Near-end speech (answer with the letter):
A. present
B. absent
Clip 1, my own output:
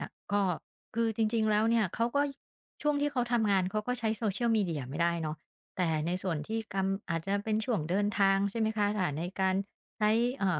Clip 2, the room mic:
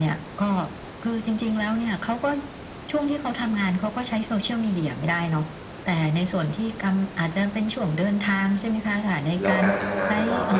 A